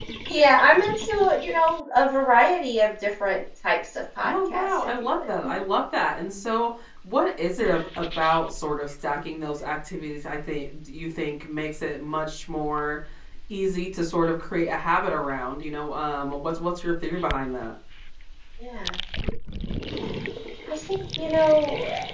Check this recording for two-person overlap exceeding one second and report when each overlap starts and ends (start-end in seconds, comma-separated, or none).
4.2-5.6